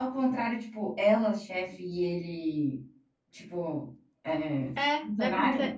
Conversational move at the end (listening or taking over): taking over